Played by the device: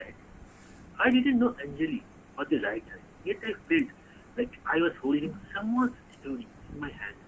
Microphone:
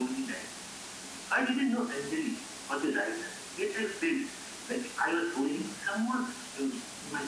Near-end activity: none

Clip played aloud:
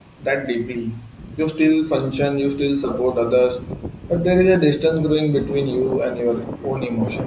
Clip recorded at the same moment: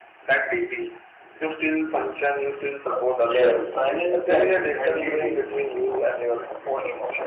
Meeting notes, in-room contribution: present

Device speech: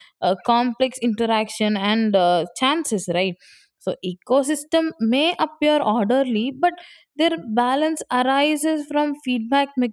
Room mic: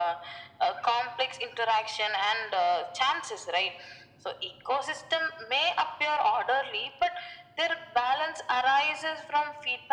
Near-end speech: none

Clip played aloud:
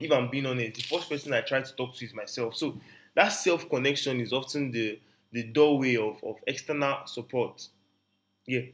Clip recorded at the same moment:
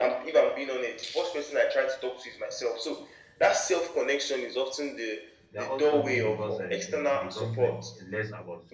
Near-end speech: present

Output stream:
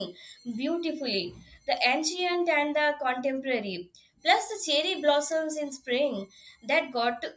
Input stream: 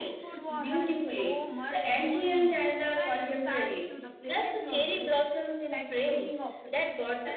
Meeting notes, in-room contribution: present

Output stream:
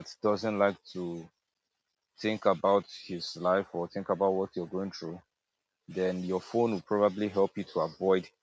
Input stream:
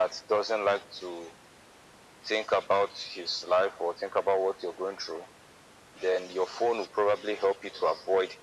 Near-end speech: none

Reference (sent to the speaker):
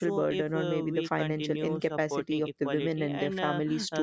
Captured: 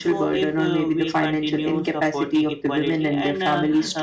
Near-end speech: none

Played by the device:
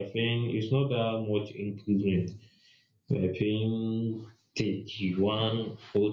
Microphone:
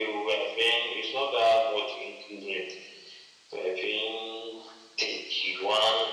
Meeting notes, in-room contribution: none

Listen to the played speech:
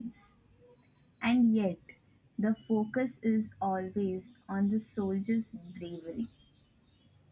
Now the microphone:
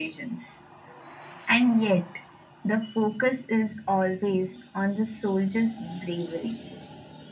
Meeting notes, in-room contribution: none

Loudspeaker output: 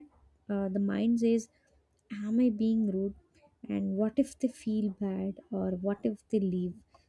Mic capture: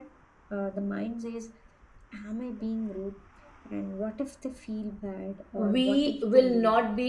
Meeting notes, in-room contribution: present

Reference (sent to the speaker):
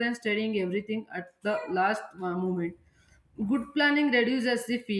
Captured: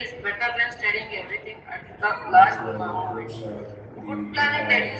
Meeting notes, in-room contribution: present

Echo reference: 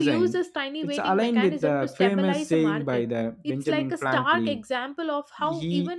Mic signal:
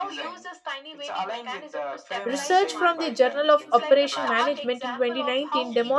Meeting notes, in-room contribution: present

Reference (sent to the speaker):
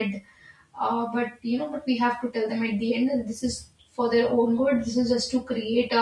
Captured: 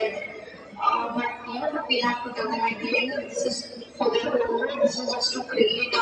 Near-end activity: none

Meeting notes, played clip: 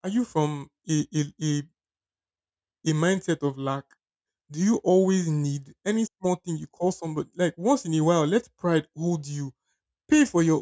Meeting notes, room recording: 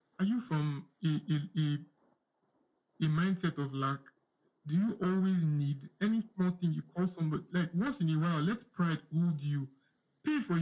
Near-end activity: none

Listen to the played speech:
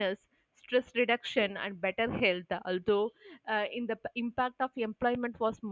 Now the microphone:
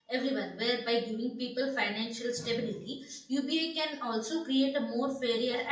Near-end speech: present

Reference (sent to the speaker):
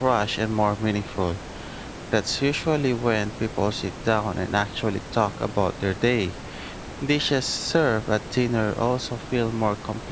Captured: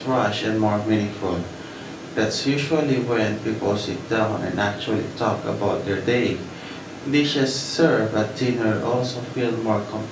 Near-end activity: none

